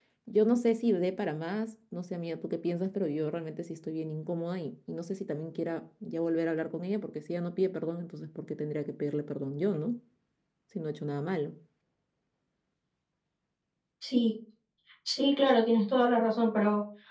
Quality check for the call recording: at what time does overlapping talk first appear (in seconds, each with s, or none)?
none